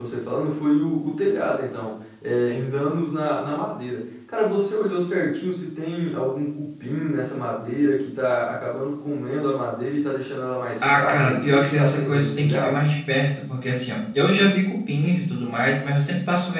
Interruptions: present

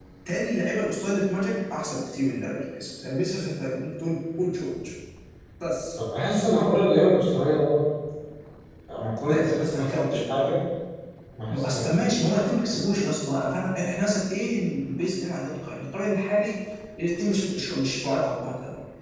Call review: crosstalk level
present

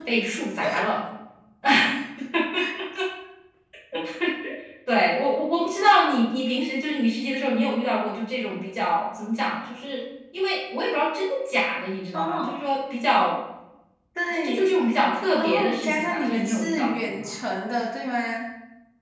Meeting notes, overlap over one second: present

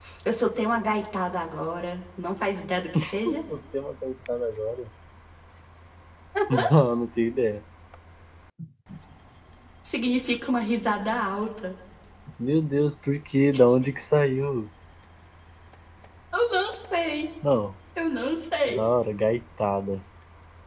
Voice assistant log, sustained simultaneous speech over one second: none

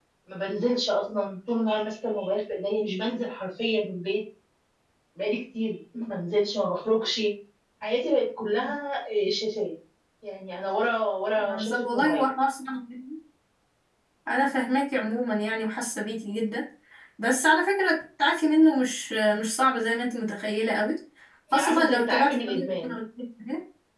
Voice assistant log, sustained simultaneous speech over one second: present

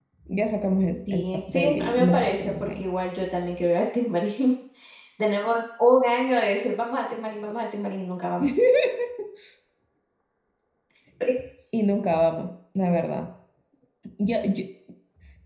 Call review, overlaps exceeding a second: present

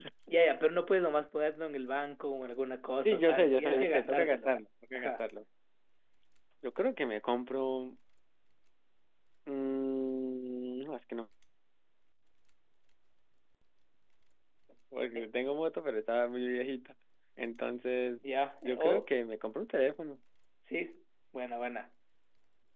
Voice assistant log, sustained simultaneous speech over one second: present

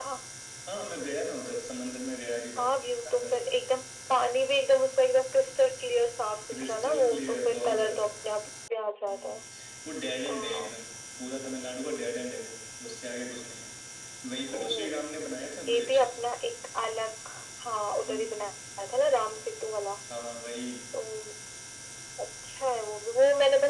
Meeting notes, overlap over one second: present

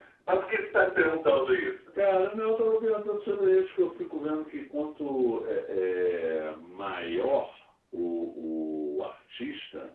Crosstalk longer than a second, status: none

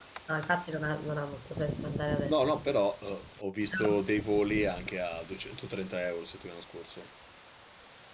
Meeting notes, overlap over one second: none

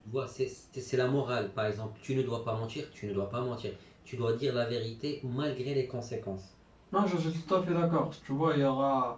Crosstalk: none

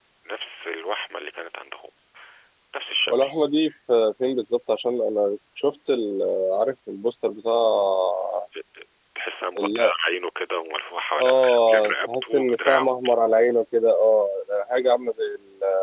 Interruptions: present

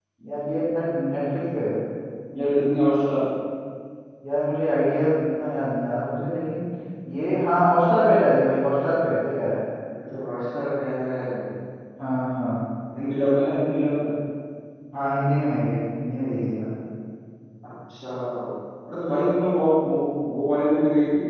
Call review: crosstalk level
none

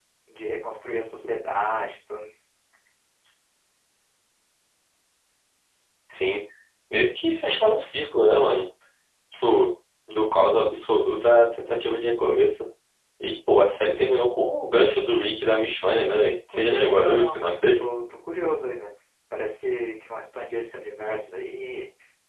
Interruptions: present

